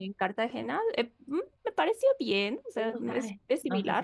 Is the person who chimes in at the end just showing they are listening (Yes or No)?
No